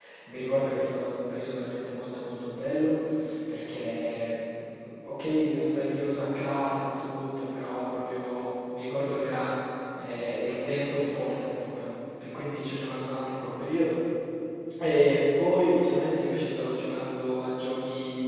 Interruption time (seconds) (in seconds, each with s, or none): none